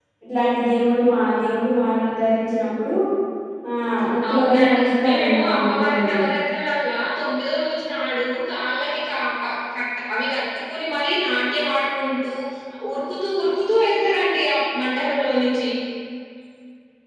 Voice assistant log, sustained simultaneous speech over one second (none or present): present